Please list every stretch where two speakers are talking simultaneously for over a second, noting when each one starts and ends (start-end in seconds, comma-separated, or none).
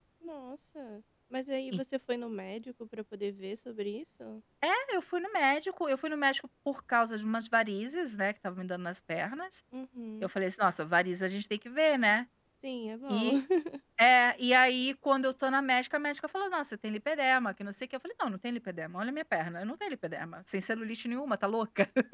none